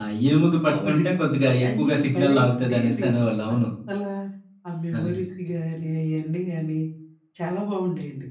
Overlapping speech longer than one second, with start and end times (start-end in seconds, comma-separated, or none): 1.5-3.0